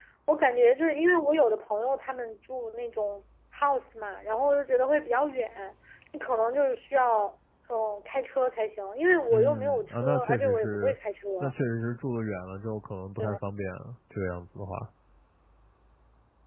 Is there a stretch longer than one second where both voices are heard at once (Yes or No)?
Yes